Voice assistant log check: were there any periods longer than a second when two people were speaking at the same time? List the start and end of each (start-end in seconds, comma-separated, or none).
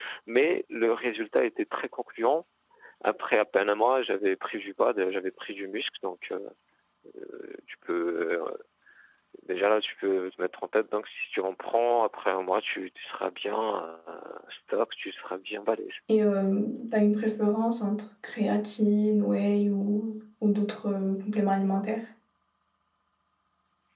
none